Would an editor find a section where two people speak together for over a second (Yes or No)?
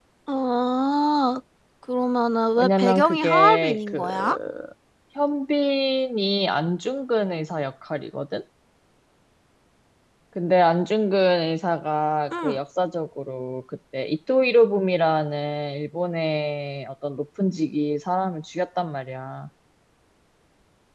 Yes